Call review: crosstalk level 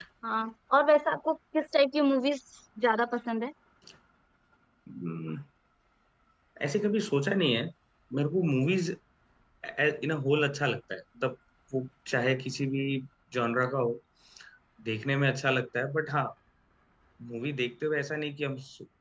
none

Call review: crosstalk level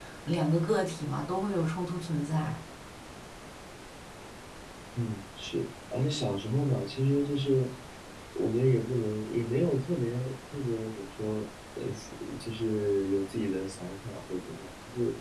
none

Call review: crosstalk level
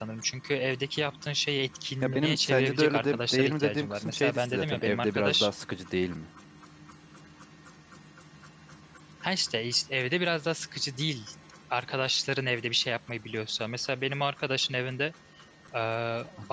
present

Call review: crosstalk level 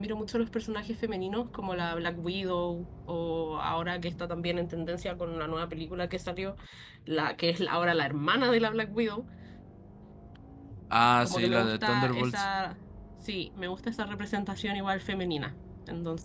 present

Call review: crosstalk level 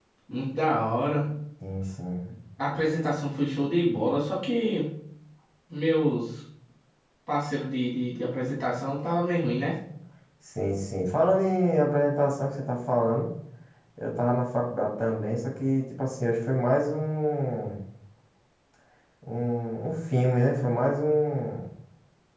none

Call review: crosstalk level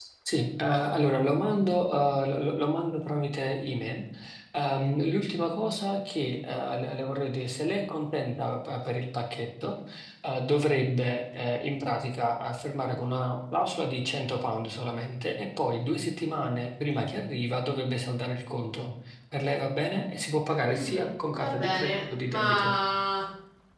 present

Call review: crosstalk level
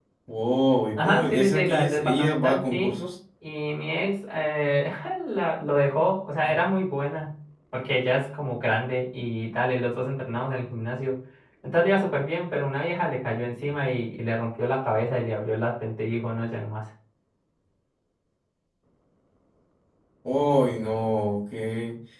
present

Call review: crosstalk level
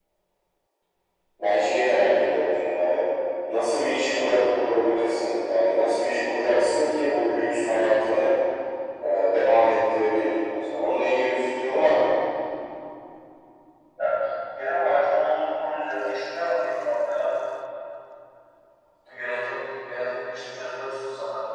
none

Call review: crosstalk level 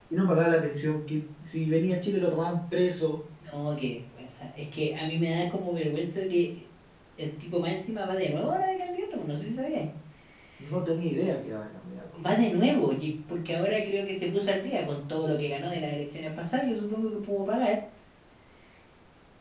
none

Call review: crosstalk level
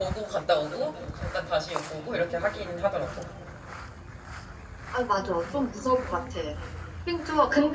none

